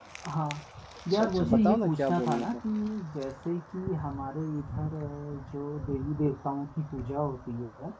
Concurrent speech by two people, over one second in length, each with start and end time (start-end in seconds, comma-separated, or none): 1.1-2.5